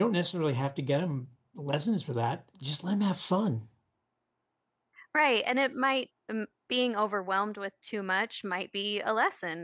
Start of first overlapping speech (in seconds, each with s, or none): none